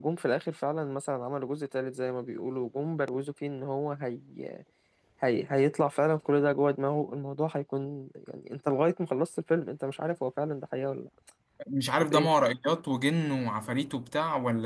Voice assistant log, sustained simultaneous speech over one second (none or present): none